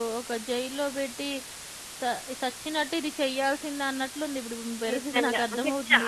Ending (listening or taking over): taking over